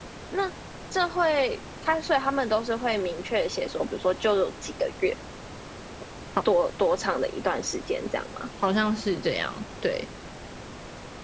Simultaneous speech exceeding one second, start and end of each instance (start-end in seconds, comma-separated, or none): none